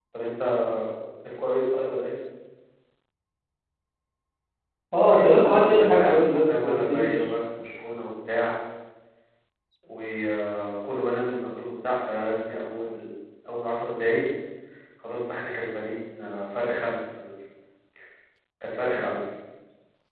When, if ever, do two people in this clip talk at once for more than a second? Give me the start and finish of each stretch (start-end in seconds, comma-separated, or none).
5.5-7.1